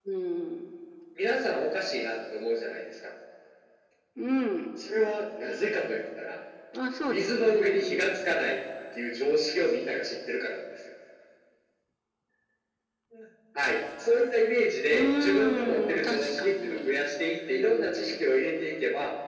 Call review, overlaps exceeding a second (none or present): present